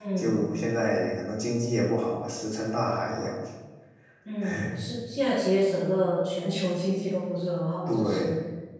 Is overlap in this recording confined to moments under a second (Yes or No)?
Yes